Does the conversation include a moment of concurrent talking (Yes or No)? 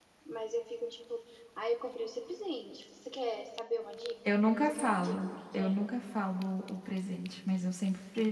Yes